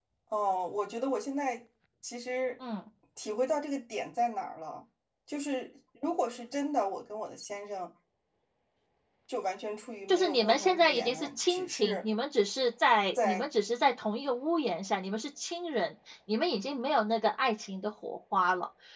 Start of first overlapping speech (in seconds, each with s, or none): 10.1 s